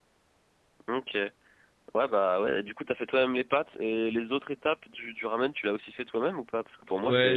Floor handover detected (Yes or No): No